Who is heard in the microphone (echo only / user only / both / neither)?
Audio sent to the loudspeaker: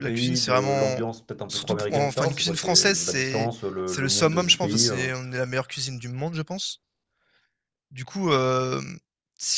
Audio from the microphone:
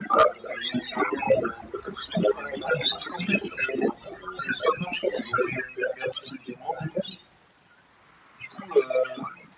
echo only